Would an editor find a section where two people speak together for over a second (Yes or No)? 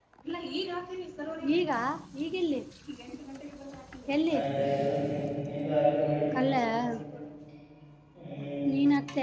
No